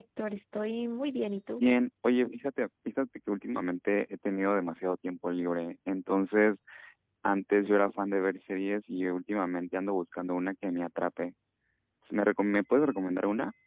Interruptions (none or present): none